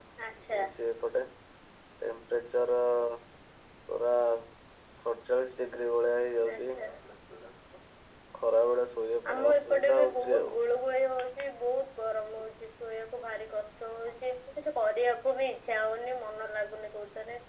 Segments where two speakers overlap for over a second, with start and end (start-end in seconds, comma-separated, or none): 9.3-10.6